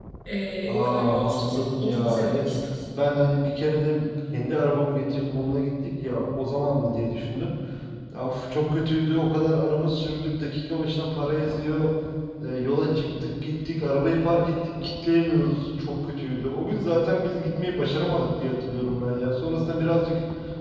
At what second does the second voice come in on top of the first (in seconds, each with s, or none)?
0.7 s